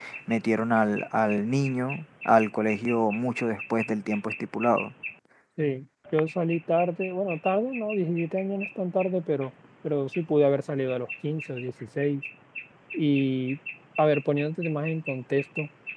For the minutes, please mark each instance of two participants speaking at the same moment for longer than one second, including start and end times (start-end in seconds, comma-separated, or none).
none